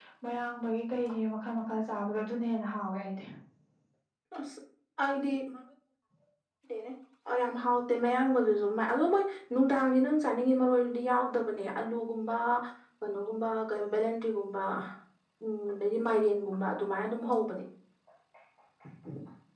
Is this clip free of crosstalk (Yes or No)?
Yes